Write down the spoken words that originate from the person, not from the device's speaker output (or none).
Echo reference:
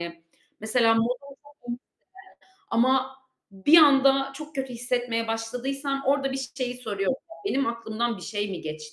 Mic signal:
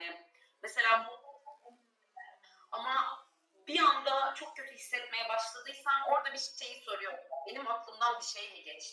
none